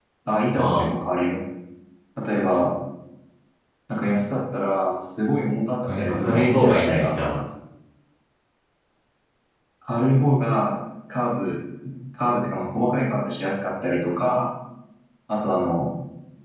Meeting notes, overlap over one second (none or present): present